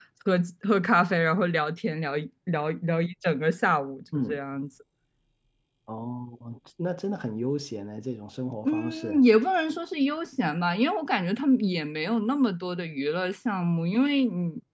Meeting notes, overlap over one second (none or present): none